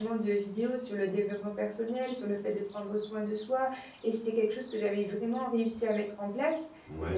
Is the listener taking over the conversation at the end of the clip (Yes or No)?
No